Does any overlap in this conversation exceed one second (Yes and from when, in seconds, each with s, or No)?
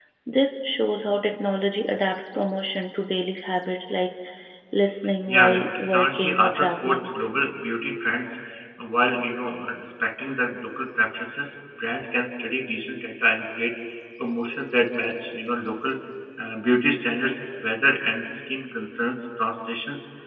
Yes, from 5.3 s